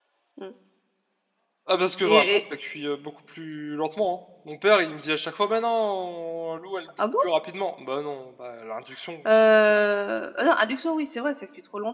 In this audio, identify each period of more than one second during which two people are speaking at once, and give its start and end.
none

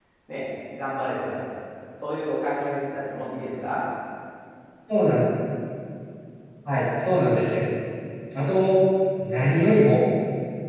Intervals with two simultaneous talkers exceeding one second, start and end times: none

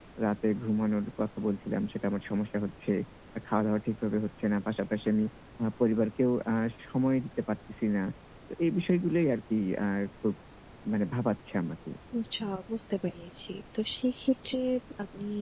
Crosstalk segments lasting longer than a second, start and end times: none

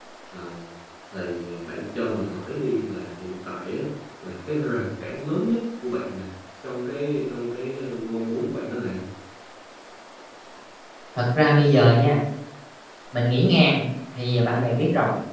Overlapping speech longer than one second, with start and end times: none

